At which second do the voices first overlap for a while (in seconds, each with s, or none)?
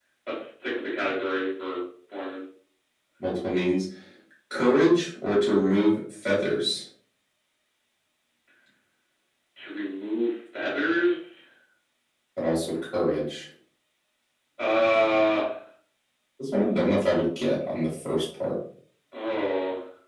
none